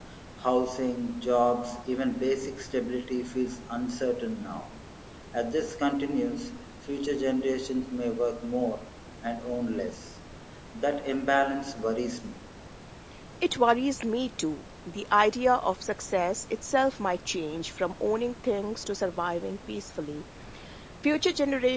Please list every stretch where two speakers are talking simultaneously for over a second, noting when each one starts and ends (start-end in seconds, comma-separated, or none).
none